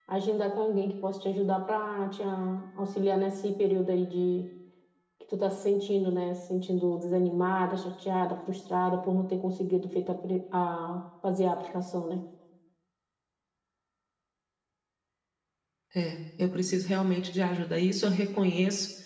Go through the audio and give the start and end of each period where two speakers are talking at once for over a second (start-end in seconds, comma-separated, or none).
none